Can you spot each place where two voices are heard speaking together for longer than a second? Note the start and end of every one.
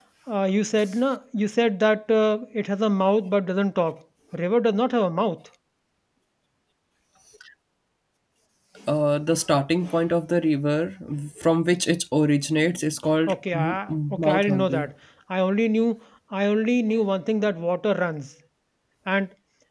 13.3-14.9

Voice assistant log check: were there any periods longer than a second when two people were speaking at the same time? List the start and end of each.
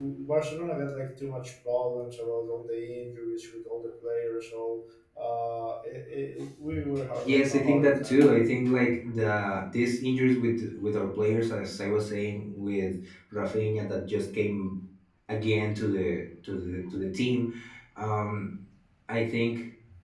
7.2-8.6

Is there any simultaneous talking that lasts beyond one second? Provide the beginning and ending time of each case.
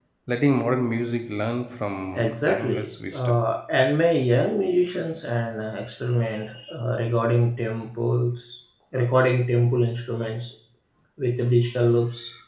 2.1-3.4

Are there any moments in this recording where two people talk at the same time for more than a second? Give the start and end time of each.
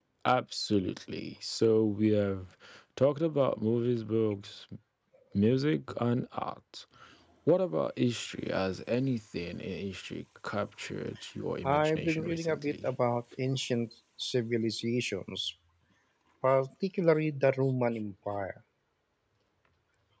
11.7-12.9

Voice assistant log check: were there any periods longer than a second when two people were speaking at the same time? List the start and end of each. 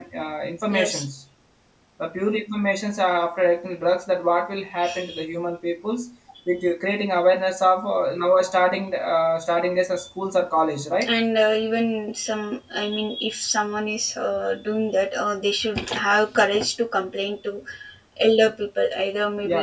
none

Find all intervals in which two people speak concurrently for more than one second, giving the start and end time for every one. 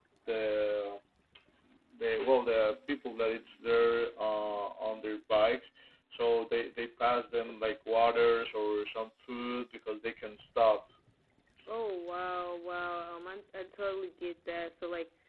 none

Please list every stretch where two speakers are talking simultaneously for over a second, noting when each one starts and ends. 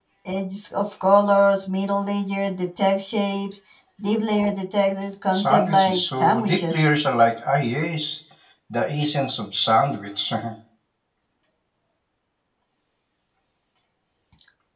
5.3-6.8

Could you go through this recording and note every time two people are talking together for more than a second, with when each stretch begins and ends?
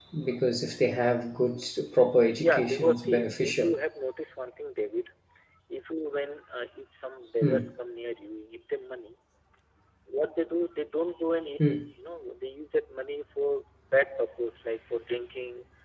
2.3-3.7

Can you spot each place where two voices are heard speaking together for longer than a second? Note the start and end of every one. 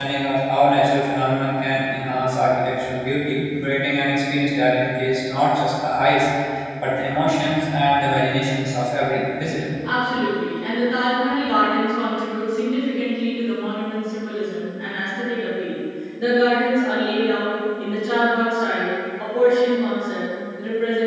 none

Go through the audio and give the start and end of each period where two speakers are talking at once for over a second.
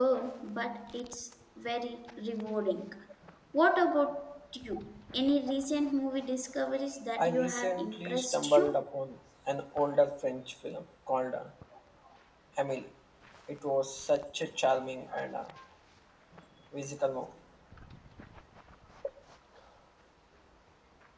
7.2-8.8

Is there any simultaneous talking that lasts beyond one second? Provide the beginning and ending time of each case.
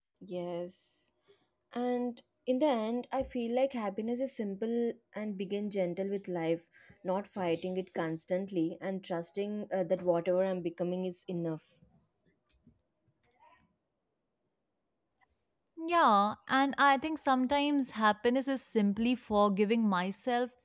none

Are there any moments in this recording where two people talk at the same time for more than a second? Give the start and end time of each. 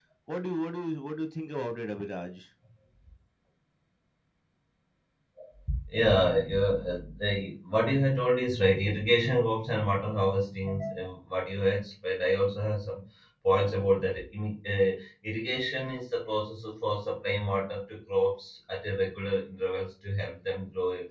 none

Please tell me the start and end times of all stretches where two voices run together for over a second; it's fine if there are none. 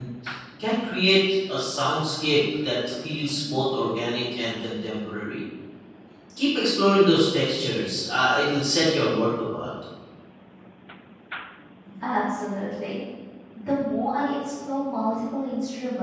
none

